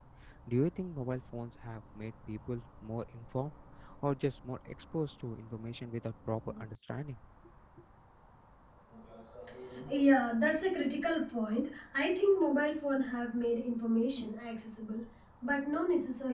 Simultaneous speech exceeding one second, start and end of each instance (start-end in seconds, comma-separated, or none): none